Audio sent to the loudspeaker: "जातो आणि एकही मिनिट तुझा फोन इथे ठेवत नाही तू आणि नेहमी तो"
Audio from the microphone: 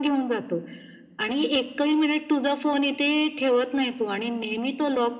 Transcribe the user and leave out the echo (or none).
none